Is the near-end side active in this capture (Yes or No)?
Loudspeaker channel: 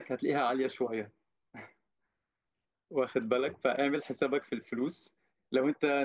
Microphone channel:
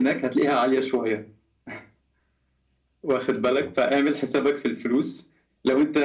No